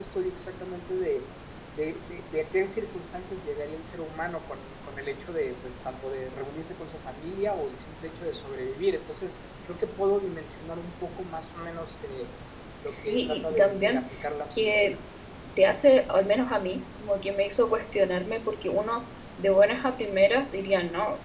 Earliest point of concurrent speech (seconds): 13 s

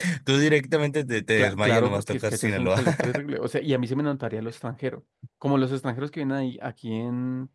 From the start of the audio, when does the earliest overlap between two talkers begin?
1 s

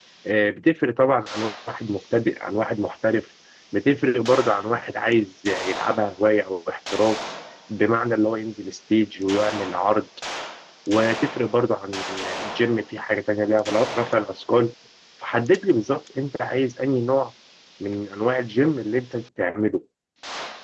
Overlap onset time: none

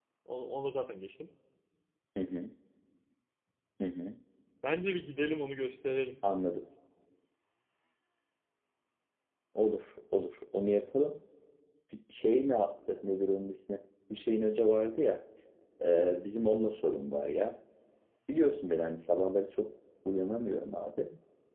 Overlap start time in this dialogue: none

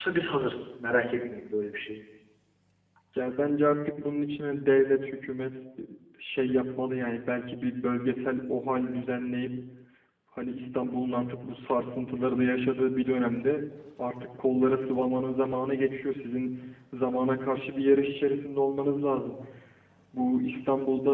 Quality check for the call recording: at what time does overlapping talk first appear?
none

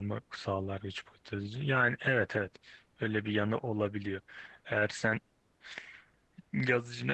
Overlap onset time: none

